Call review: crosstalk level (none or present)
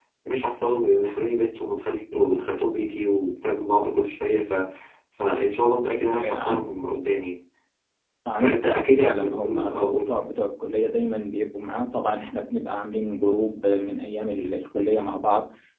present